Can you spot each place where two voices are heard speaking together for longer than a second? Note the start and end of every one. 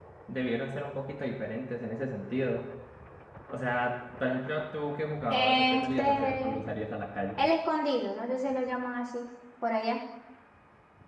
5.3-6.5

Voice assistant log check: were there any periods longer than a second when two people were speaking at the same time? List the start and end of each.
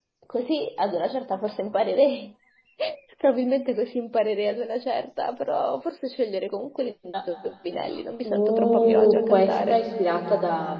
8.2-9.8

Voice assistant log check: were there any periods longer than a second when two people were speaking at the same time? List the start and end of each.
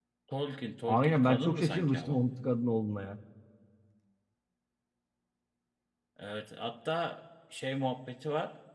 0.9-2.2

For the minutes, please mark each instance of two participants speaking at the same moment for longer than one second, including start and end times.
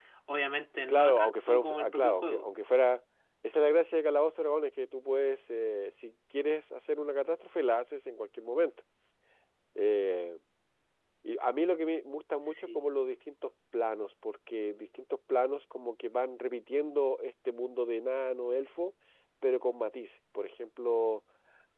0.9-2.5

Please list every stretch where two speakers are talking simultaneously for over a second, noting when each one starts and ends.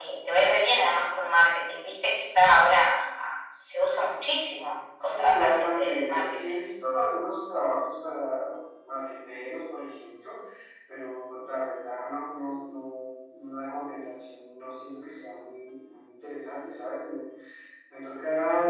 5.0-6.6

